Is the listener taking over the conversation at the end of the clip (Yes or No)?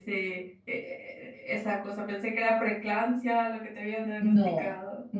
Yes